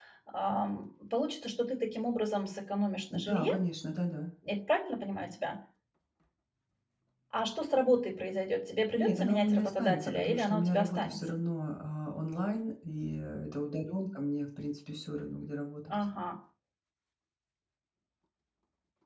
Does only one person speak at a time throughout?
No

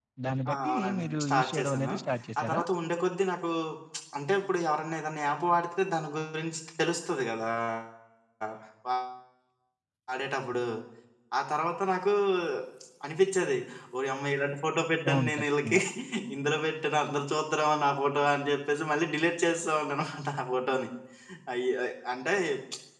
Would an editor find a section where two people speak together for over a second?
Yes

